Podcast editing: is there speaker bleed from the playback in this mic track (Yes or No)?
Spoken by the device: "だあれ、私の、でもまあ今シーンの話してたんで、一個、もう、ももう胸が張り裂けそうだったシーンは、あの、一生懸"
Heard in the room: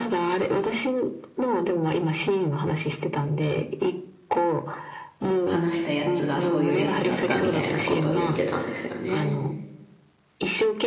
Yes